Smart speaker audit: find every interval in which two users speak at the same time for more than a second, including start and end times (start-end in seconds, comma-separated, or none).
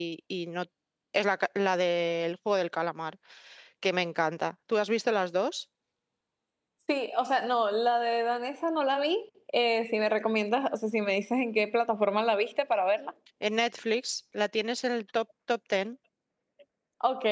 none